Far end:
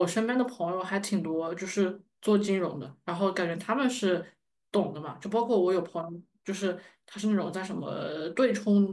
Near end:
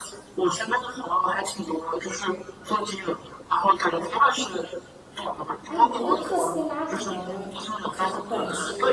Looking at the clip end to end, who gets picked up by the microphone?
both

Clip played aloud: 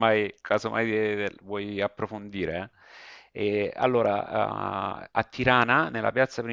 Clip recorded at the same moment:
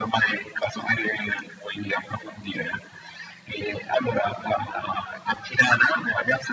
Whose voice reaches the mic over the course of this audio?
echo only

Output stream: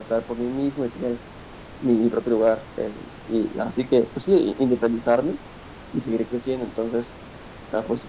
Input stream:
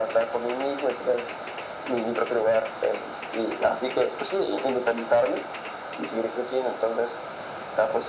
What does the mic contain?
echo only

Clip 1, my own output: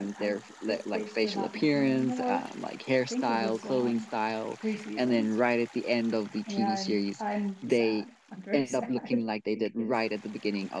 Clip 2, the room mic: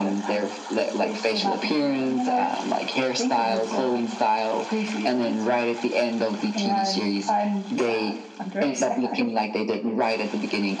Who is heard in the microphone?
echo only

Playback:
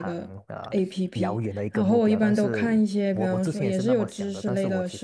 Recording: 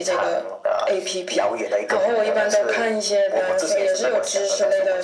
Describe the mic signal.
echo only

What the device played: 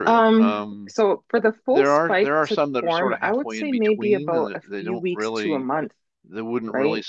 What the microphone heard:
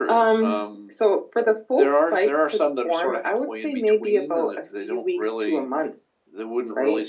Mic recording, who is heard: echo only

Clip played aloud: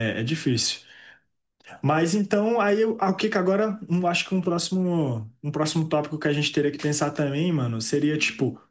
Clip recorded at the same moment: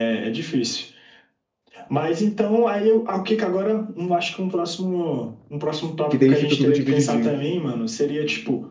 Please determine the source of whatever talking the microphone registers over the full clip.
both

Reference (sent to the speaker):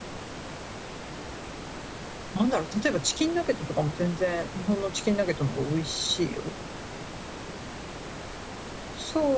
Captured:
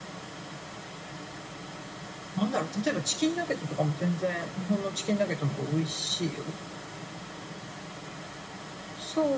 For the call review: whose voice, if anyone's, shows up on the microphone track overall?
echo only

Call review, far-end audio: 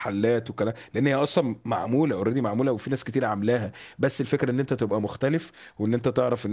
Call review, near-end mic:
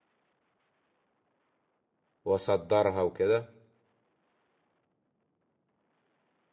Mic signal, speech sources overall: user only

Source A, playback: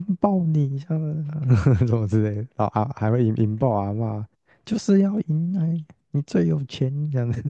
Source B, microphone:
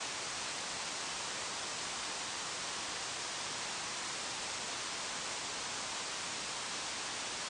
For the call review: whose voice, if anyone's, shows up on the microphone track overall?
neither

